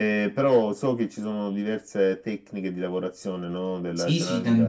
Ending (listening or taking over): taking over